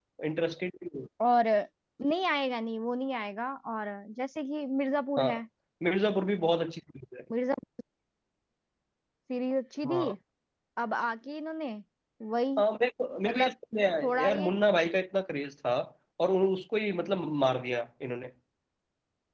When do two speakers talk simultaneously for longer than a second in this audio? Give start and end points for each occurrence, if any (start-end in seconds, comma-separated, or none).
none